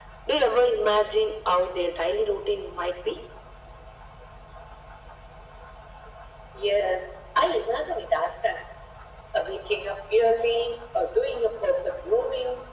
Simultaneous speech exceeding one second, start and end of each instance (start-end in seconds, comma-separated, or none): none